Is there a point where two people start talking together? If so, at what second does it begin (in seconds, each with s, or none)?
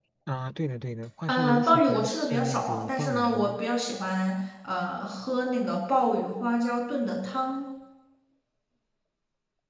1.3 s